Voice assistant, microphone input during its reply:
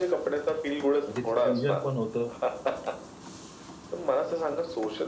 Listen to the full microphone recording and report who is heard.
both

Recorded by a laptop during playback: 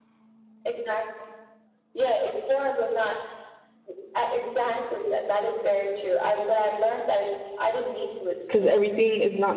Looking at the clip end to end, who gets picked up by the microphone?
both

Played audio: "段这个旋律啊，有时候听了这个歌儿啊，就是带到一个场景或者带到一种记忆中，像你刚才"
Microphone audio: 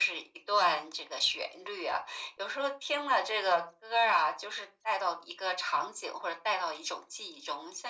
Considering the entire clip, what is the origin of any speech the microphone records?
echo only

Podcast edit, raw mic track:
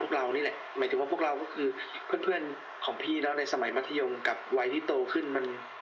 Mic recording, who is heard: echo only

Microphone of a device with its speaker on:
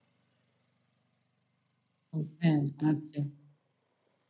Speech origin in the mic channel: user only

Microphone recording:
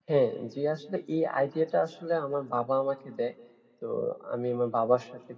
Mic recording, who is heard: user only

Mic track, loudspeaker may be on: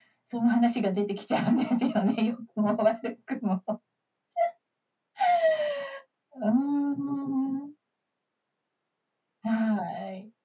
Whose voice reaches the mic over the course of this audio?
echo only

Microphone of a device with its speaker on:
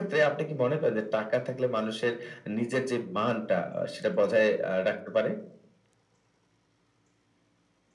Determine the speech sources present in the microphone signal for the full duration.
echo only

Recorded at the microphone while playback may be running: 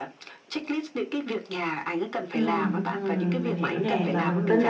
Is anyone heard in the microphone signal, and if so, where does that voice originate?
both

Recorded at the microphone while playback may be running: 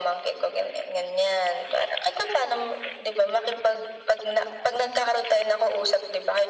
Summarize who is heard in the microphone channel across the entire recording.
echo only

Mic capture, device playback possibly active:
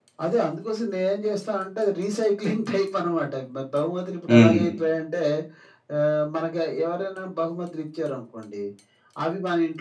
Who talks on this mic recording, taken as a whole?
both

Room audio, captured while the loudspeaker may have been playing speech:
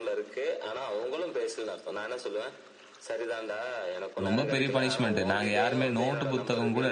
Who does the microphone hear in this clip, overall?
both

